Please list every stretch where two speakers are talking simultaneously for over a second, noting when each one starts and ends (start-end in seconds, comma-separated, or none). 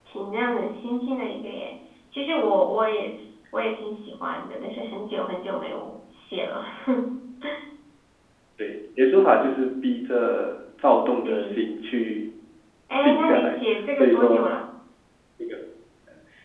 none